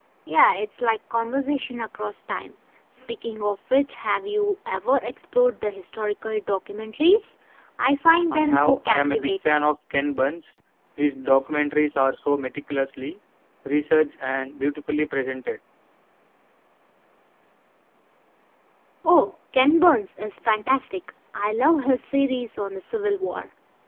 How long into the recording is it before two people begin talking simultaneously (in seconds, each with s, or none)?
8.3 s